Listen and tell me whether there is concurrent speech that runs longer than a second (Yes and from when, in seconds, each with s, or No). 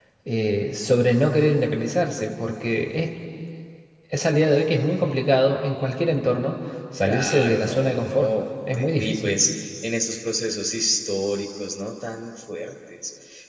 Yes, from 7.0 s